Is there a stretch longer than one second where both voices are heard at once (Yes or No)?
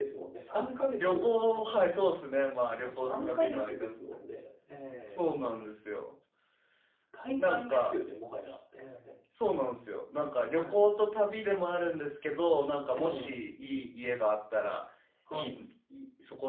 Yes